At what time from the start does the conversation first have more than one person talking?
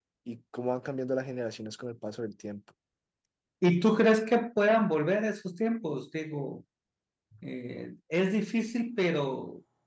none

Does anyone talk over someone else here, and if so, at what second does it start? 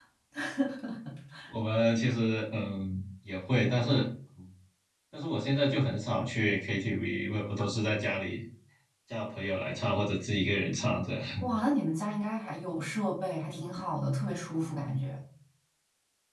none

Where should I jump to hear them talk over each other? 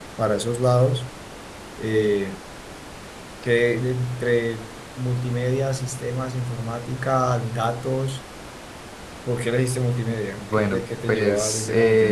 10.4 s

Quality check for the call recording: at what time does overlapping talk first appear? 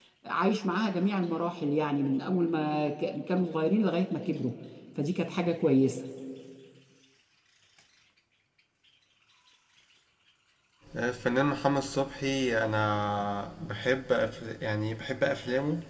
none

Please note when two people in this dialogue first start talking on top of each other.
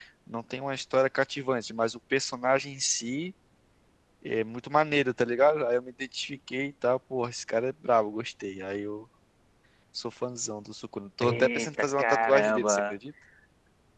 11.2 s

